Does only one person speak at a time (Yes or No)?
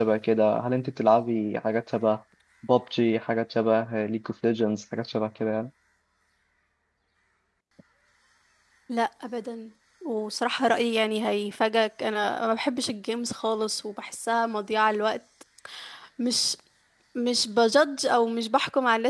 Yes